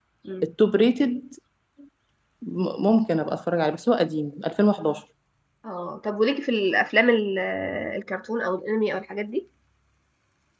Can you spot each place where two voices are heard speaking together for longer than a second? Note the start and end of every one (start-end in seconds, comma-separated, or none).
none